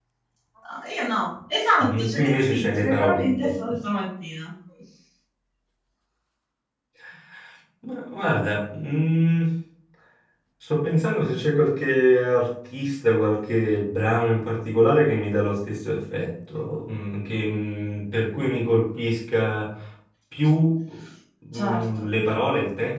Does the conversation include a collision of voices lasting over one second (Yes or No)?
Yes